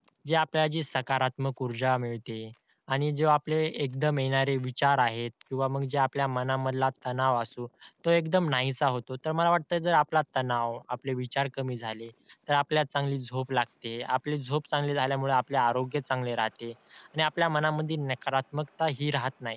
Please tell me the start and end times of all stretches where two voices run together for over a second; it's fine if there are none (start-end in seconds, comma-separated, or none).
none